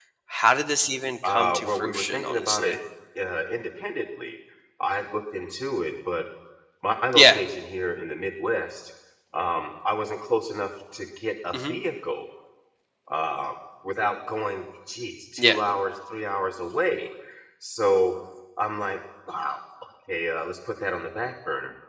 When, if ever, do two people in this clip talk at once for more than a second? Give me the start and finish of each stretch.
1.2-2.8

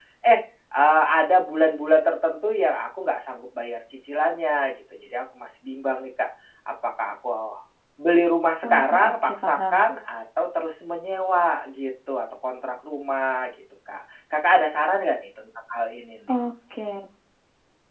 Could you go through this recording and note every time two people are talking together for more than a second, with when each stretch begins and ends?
8.6-9.8

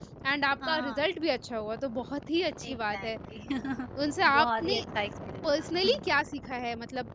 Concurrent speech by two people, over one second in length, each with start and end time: none

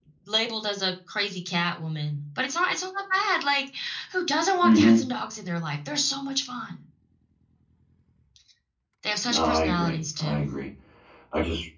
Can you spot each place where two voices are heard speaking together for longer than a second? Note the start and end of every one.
9.2-10.5

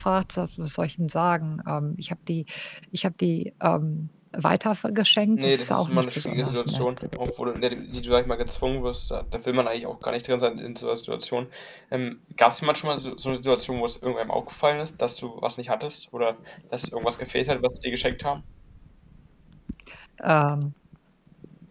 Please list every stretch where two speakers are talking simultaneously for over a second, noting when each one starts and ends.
5.4-6.9

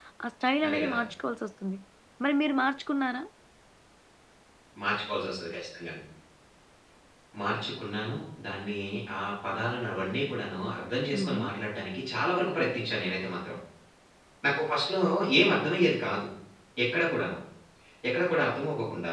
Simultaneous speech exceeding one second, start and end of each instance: none

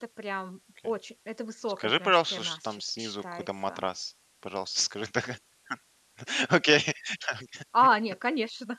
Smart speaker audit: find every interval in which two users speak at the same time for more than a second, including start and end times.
1.7-3.8

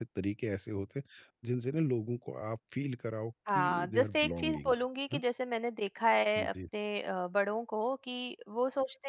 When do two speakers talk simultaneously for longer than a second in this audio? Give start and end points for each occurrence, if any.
3.5-4.7

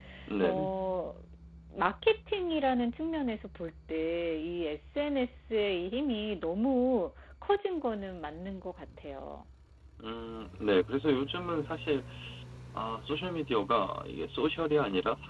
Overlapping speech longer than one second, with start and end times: none

